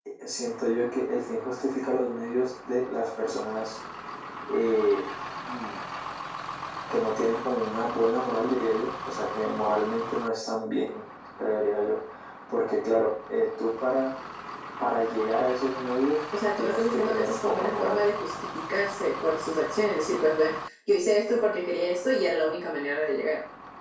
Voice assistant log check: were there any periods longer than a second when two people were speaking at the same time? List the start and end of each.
16.6-18.0

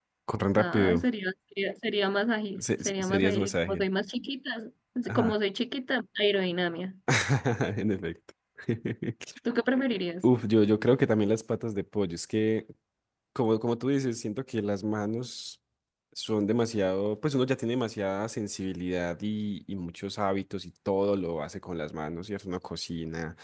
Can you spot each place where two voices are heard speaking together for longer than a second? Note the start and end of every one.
2.6-3.8

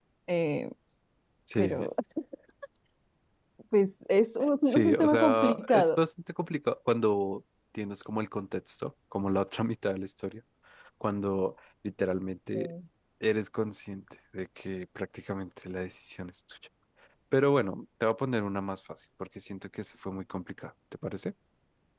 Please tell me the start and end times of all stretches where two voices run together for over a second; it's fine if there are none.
4.6-6.0

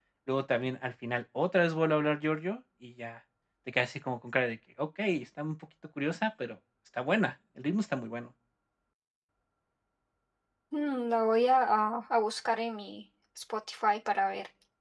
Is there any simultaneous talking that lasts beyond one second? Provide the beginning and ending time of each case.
none

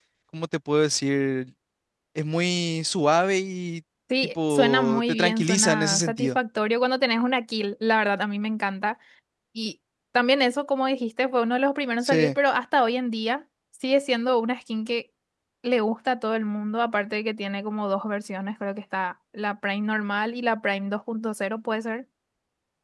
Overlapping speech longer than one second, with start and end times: 4.5-6.4

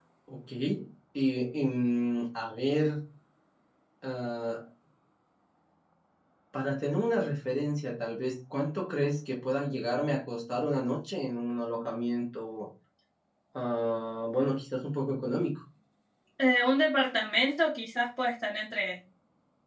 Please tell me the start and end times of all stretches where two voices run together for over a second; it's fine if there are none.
none

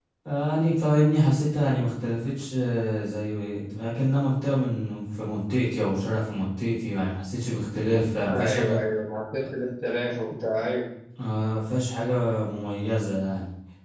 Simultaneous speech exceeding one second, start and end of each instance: none

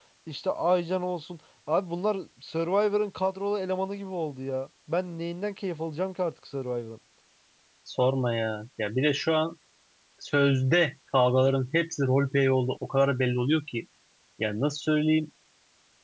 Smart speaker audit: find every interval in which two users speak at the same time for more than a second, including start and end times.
none

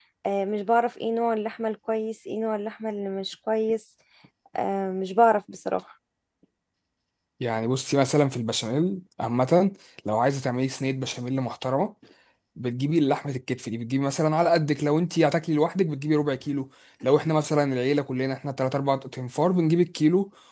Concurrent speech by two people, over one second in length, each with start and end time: none

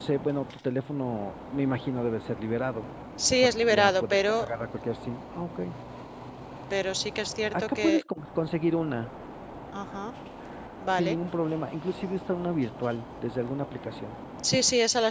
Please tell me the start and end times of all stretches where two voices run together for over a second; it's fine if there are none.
3.3-4.5

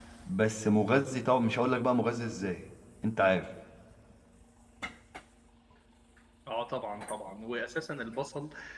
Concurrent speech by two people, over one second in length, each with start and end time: none

